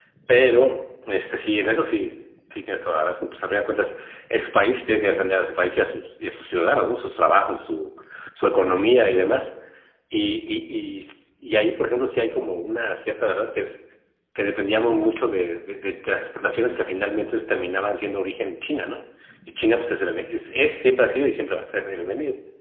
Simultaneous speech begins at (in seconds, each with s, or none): none